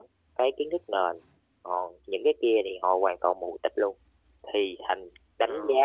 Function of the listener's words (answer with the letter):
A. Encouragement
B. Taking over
A